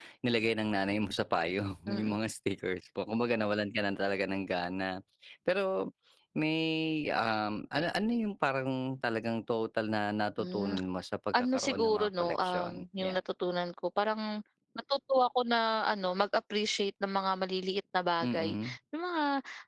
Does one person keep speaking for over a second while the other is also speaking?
Yes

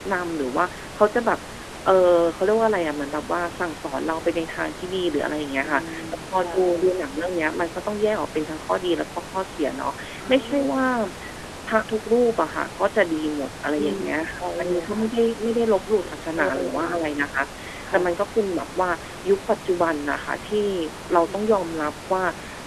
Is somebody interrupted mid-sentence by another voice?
Yes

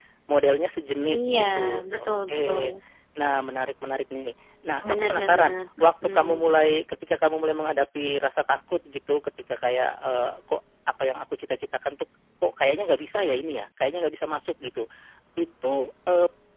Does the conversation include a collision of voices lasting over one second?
Yes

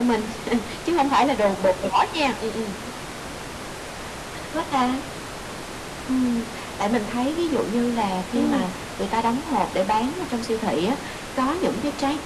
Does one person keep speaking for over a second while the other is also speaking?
No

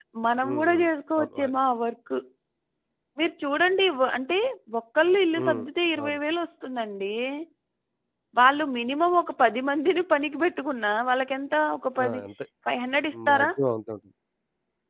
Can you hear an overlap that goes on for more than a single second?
No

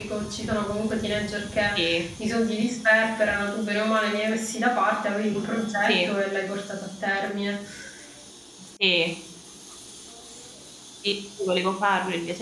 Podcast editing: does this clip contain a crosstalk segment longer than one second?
No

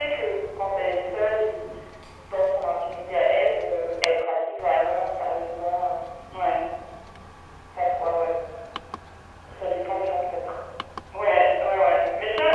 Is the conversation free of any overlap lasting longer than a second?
Yes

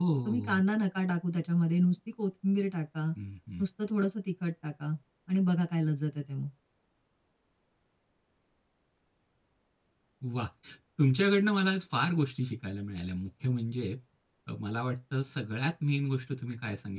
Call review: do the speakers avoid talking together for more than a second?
Yes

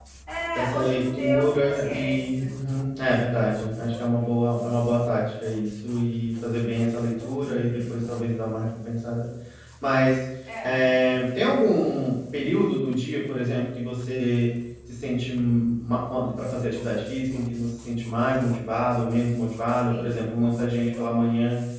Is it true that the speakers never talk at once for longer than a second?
No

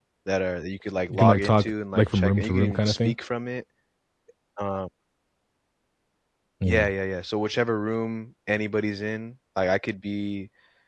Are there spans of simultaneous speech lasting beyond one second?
Yes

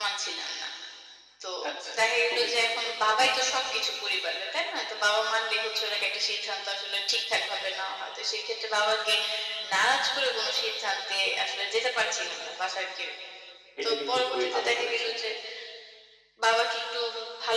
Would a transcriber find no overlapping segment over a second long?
No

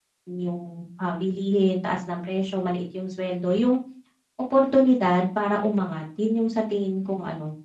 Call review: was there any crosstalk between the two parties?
No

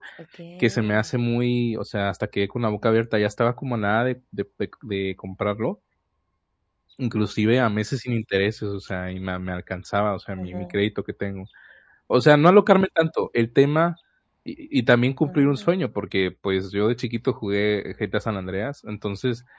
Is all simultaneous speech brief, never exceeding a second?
Yes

